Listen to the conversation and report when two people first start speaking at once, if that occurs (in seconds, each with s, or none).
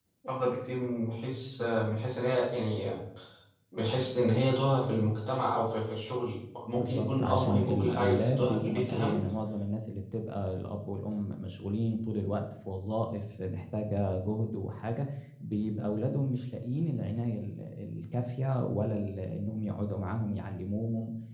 6.7 s